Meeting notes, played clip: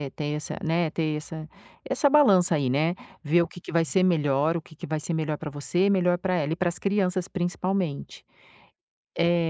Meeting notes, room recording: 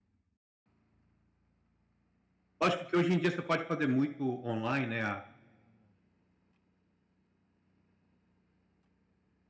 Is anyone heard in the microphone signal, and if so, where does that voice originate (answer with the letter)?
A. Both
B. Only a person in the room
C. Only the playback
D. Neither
B